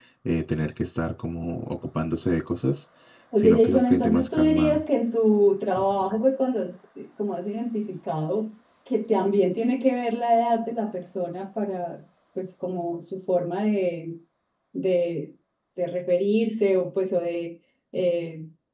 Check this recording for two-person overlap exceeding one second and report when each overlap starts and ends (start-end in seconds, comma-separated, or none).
3.4-4.8